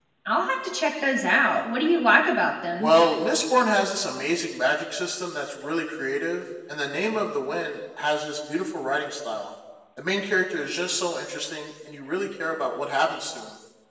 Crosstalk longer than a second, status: none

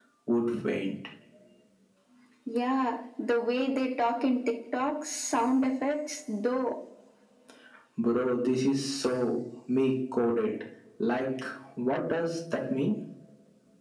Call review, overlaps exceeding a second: none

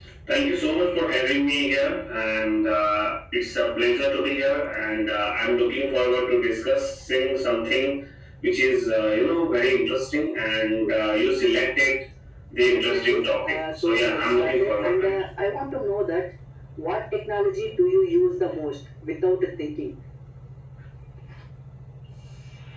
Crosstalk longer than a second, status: present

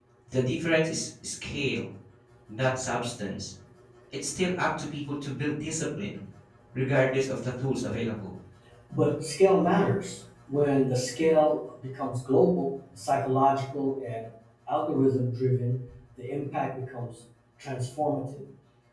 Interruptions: none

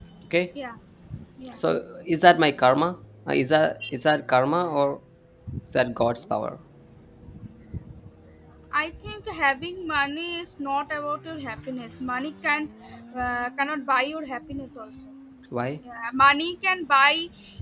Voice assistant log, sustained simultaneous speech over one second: none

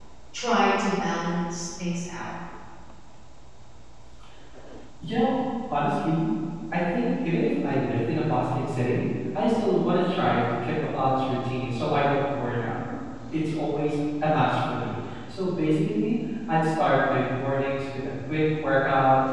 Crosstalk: none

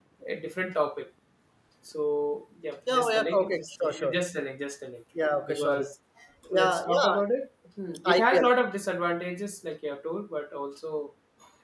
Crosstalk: present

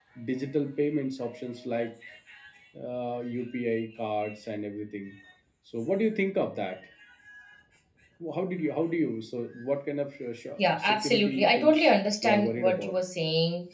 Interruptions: present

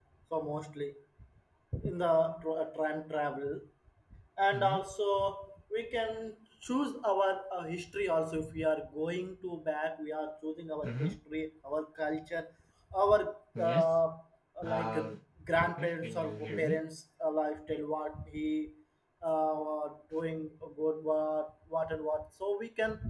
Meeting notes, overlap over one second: present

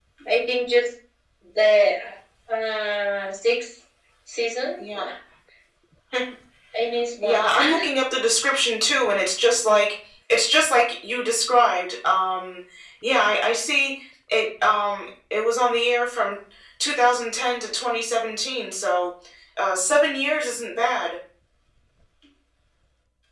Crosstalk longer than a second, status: none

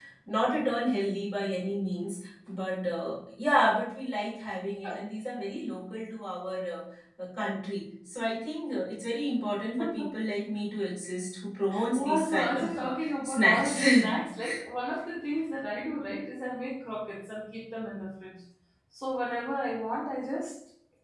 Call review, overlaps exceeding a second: present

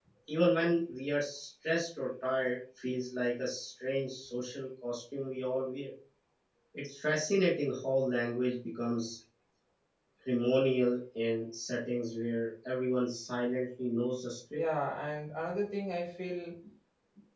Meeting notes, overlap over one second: none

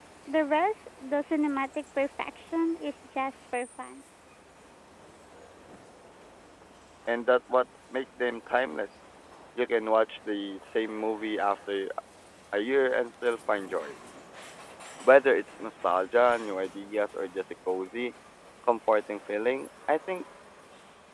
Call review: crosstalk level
none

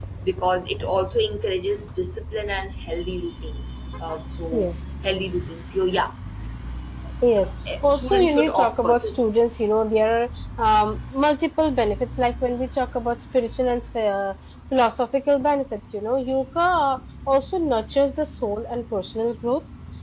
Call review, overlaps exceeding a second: present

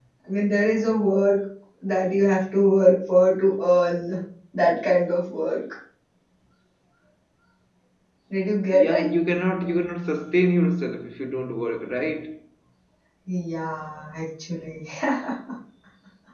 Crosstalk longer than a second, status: none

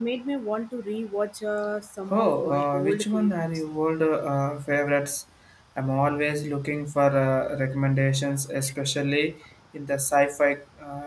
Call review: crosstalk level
present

